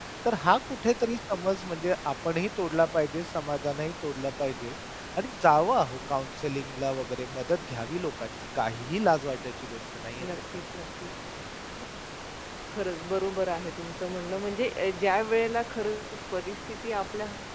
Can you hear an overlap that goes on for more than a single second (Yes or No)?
No